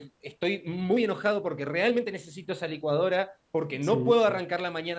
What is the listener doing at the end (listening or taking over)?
listening